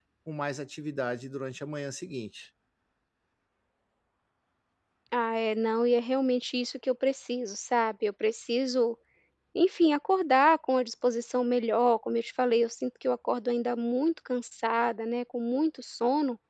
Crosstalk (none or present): none